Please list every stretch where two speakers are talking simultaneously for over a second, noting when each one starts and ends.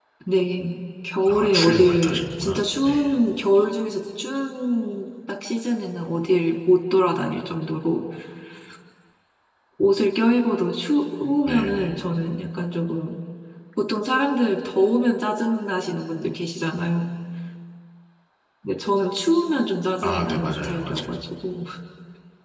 1.3-3.0, 20.0-21.2

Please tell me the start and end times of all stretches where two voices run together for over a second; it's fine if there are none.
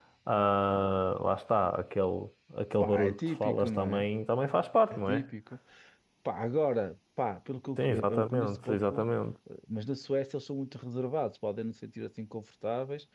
2.8-4.1, 7.8-9.0

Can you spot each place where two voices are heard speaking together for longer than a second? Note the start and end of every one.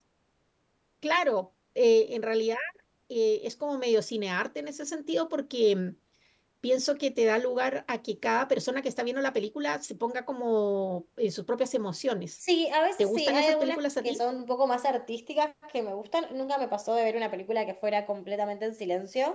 13.0-14.2

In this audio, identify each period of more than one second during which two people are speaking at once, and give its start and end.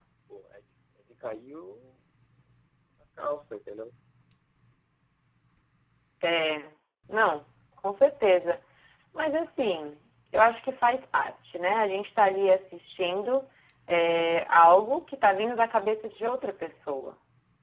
none

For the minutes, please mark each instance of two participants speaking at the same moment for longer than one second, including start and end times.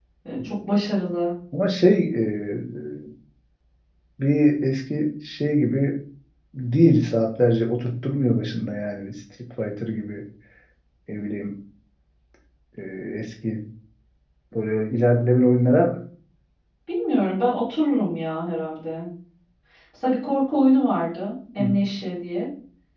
none

